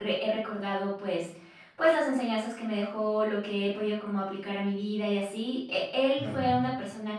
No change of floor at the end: Yes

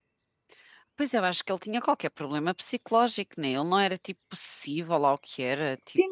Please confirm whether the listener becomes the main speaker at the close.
Yes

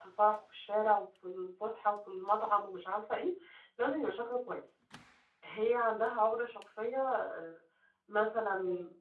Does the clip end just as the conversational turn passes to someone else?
No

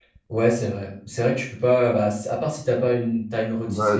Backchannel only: No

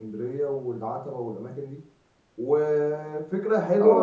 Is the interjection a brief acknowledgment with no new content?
Yes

